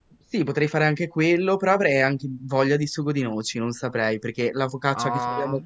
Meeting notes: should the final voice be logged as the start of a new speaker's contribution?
No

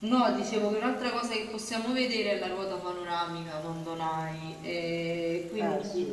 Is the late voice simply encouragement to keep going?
Yes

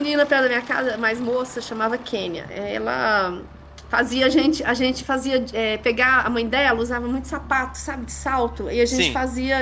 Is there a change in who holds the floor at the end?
No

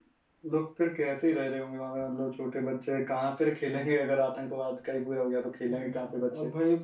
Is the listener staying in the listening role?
No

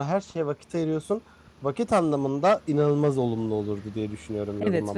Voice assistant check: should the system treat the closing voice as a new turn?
Yes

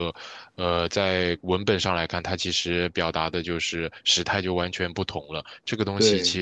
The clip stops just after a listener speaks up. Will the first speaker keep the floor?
Yes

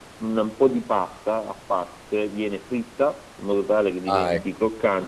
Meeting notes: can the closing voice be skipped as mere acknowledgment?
Yes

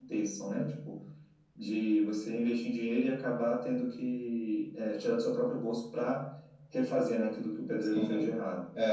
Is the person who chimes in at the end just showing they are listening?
No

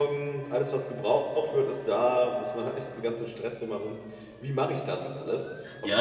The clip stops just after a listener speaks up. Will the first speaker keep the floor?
No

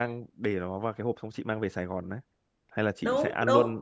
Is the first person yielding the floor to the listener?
Yes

